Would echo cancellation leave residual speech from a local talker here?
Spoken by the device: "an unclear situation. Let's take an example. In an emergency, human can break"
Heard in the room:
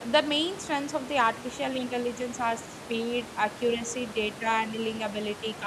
Yes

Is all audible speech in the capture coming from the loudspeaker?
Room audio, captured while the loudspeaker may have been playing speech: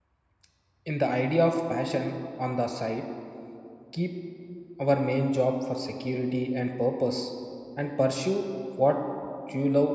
No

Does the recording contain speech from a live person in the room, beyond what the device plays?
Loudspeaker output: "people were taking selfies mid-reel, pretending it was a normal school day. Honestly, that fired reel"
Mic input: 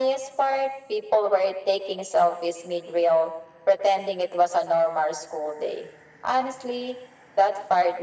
No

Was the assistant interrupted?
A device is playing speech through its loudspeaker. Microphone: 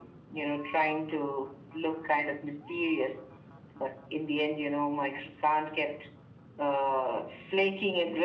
No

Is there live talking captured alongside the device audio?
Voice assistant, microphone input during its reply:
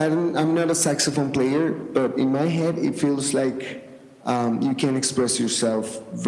No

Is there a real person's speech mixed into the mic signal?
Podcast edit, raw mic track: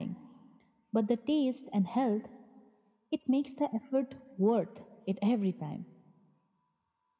No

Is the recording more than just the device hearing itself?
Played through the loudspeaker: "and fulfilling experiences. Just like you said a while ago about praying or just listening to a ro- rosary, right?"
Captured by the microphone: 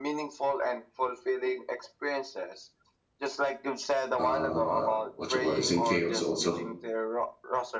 Yes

